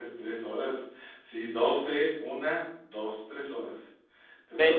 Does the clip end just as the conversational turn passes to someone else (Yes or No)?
Yes